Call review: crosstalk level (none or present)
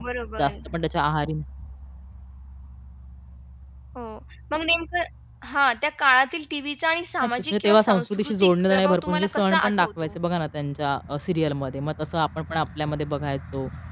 present